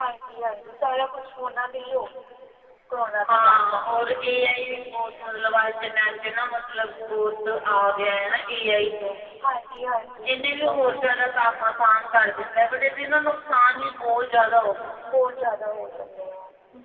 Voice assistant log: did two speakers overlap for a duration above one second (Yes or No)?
No